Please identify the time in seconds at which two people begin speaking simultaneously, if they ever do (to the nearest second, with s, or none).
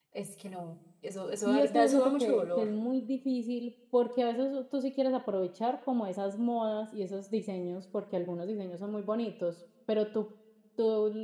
1 s